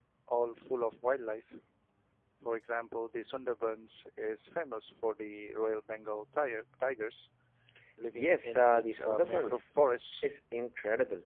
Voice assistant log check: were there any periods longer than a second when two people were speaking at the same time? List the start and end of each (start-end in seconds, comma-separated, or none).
8.2-9.7